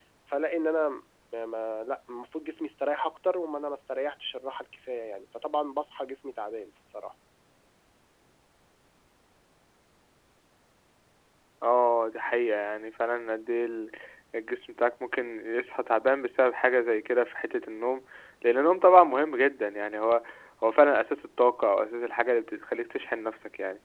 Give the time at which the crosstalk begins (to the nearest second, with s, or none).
none